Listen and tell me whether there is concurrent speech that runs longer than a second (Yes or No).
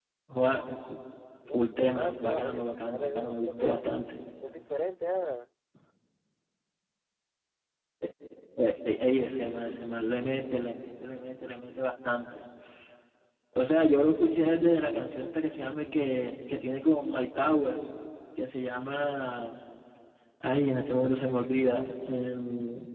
Yes